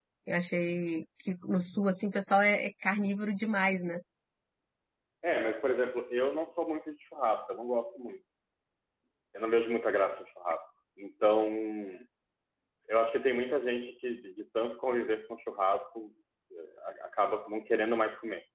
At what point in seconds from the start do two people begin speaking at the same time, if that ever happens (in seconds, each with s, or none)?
none